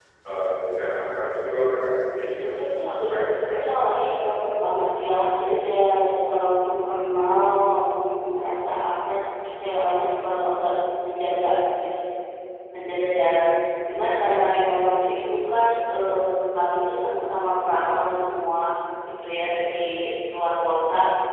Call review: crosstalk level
present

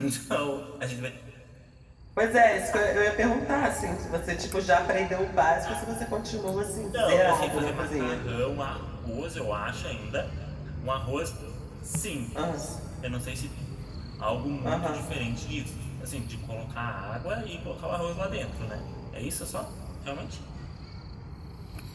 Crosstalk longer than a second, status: present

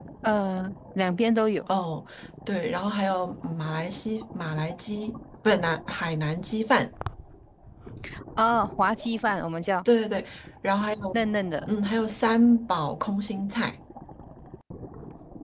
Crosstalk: none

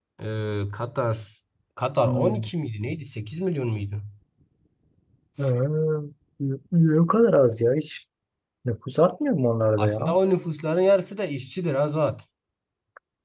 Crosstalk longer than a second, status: none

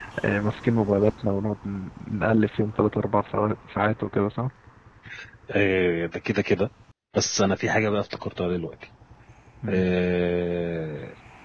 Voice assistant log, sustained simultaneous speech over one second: none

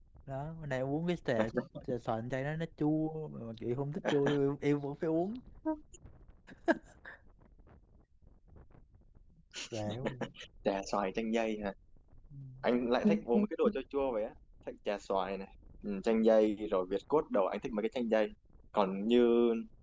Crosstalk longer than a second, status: none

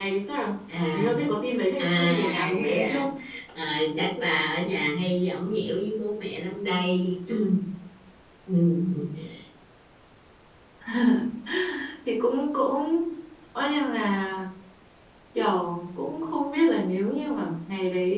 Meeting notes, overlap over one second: present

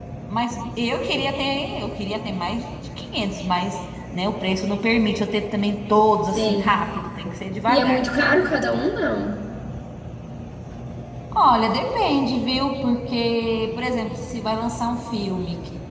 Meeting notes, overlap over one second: none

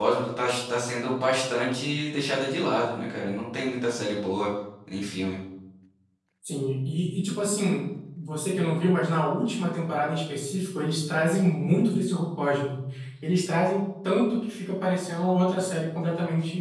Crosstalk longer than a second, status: none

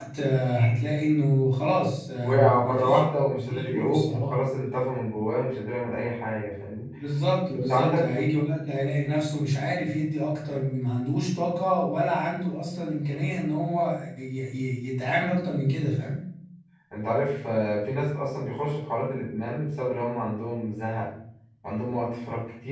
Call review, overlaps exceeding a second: present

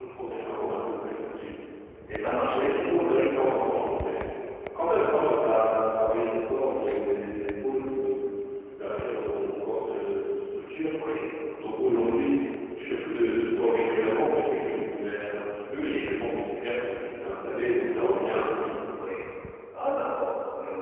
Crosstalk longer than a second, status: none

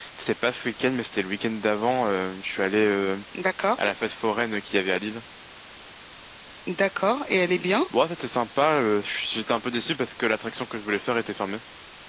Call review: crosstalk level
none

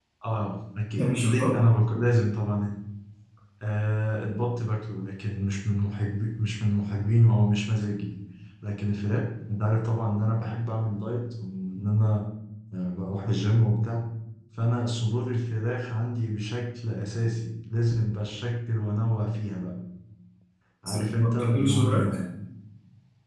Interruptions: present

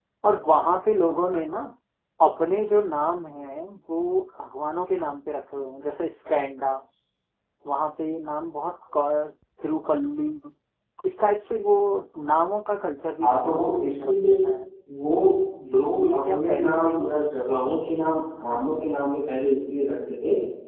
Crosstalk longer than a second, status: present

